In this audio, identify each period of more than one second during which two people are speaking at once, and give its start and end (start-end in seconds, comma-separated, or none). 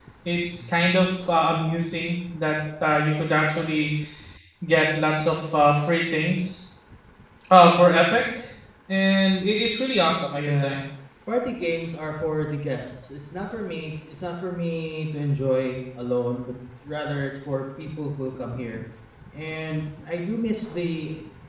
none